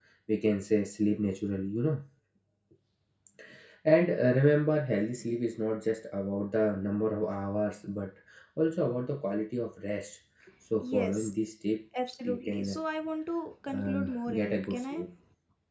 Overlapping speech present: Yes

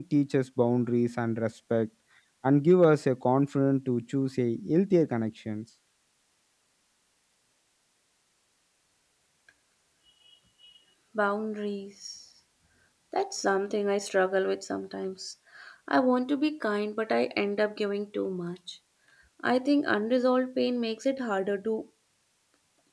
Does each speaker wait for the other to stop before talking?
Yes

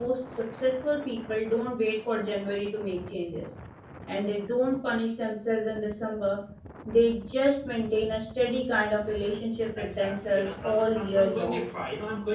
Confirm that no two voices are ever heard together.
No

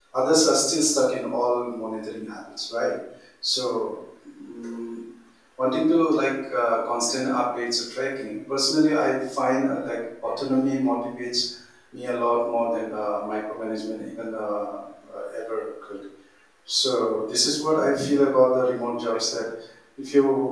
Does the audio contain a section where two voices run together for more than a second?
No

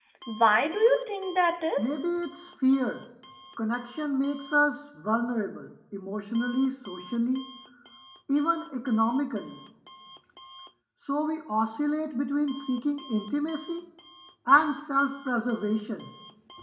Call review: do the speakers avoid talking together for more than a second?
Yes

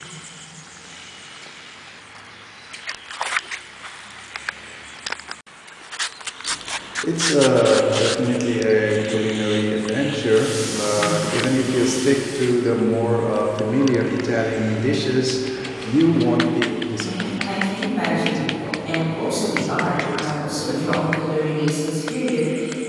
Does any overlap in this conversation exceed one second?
Yes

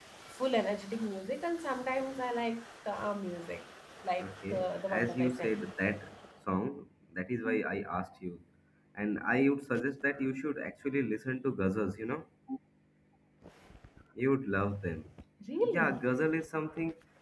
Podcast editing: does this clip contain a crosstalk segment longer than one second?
Yes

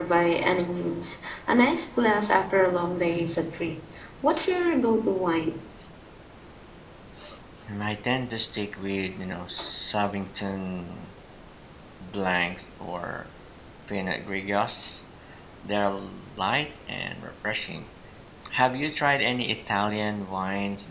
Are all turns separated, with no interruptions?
Yes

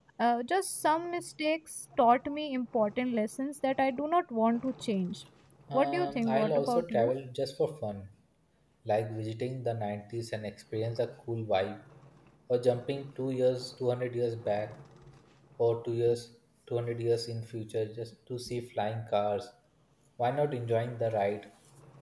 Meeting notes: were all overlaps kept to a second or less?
No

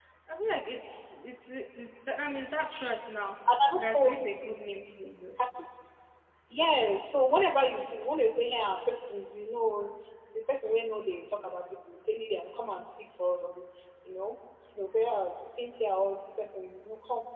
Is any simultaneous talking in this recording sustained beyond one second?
No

